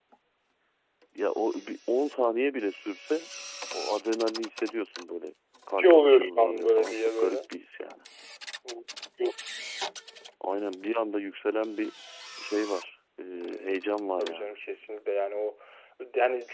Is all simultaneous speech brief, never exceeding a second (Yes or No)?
No